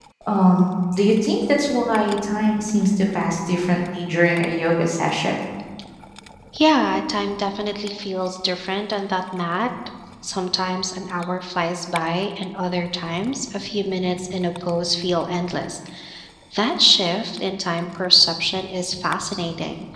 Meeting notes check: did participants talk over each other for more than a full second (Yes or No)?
No